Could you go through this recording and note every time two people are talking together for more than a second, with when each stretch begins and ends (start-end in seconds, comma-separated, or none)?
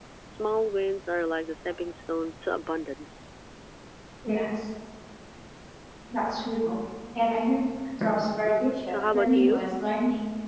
8.4-9.6